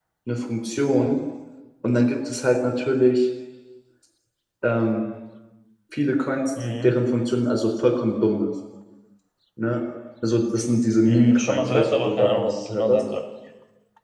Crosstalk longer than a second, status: present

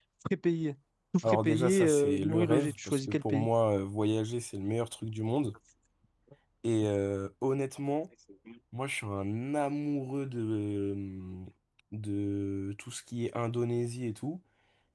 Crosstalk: present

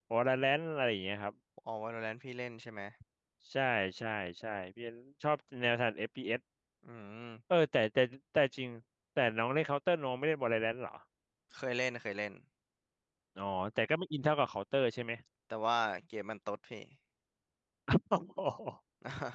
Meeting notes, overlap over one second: none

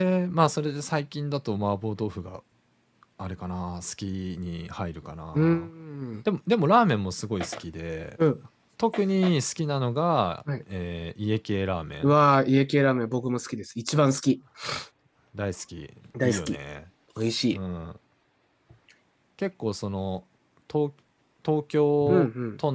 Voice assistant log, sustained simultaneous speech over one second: none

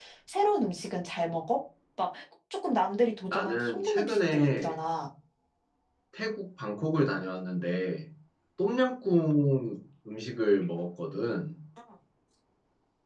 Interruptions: present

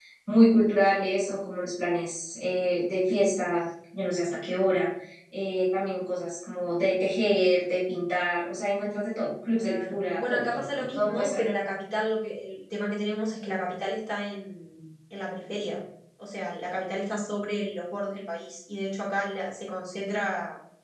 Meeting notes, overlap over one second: present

